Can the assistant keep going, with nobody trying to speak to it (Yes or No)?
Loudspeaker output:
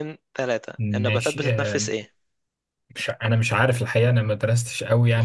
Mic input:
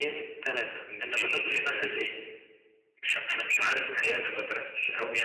Yes